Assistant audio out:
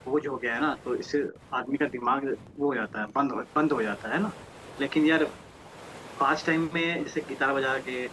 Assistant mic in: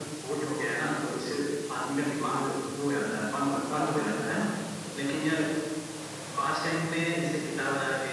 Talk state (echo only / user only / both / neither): both